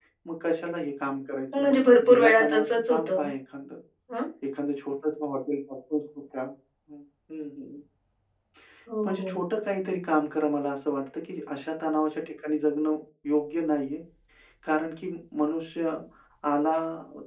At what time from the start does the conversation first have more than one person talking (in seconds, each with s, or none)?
1.5 s